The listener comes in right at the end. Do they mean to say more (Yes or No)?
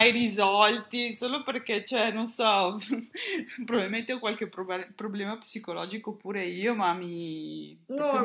Yes